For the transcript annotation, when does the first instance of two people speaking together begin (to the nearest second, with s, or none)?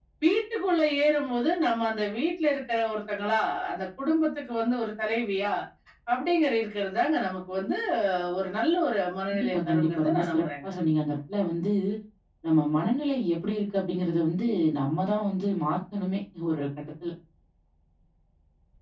9 s